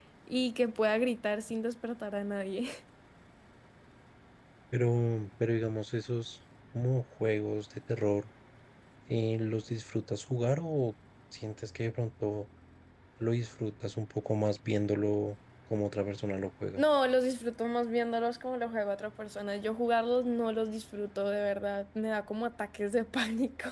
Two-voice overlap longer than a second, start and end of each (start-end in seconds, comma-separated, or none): none